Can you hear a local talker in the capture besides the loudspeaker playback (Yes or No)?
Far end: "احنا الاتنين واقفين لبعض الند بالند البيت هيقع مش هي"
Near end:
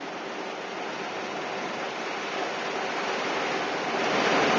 No